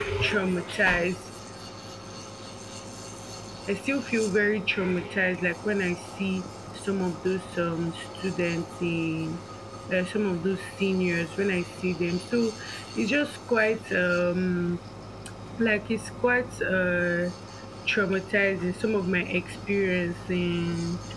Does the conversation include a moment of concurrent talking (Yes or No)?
No